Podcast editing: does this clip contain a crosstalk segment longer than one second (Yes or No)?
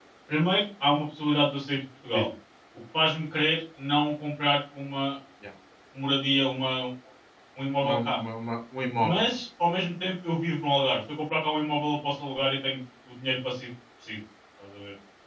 No